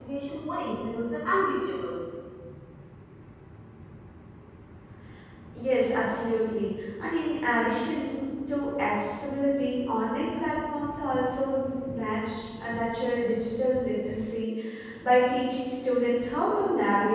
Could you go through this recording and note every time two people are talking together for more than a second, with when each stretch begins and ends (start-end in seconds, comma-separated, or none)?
none